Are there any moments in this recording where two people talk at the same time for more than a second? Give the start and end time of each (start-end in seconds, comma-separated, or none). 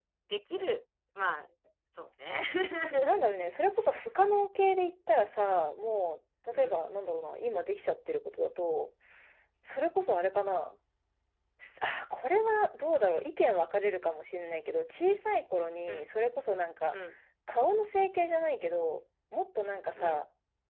none